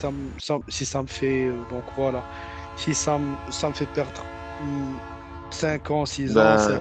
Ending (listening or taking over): listening